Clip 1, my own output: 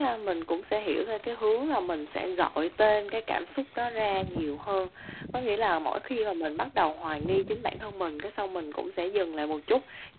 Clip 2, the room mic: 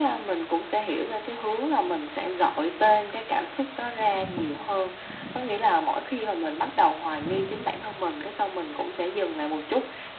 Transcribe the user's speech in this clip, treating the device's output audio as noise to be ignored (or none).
none